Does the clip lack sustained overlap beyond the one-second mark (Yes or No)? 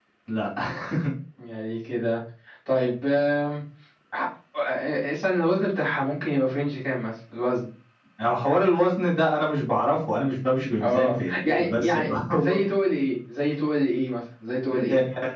No